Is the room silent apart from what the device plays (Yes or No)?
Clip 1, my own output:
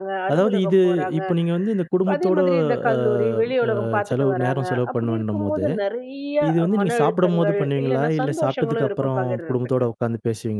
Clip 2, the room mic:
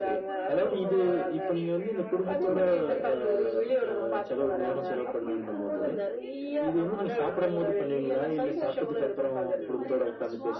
No